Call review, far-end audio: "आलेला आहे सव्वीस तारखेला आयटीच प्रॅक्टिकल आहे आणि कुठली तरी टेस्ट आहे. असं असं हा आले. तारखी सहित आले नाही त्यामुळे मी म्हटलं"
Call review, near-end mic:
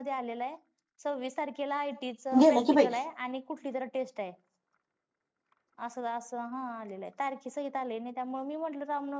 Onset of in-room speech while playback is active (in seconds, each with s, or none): 2.4 s